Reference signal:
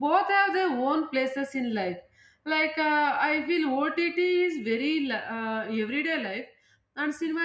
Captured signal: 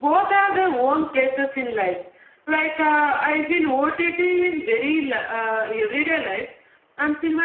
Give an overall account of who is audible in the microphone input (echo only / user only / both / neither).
echo only